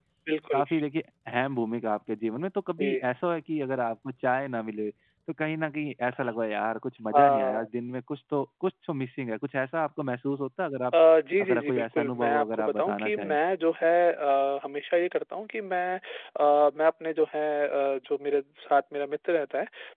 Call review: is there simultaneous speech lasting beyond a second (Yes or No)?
Yes